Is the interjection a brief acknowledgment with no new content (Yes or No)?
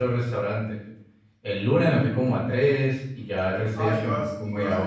No